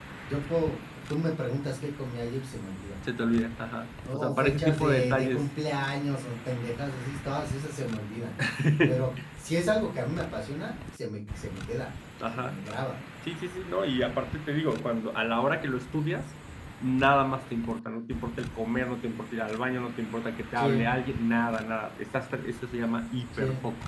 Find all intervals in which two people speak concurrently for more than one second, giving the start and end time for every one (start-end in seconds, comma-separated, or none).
4.1-5.5